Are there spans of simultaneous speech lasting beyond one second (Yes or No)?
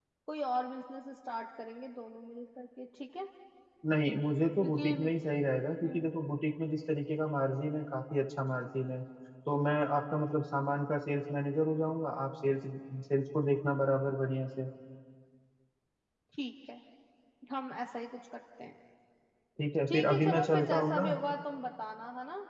Yes